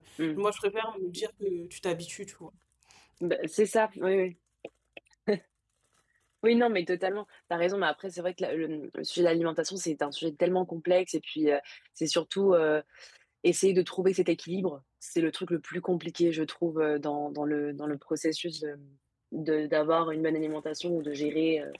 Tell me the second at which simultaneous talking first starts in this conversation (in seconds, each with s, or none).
none